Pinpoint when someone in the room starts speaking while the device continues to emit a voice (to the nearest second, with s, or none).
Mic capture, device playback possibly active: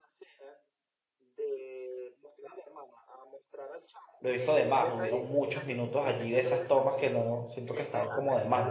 4 s